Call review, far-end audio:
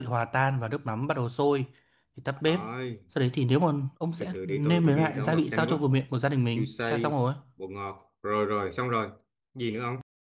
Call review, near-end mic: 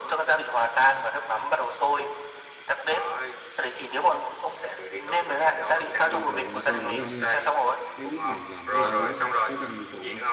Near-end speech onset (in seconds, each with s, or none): 6.0 s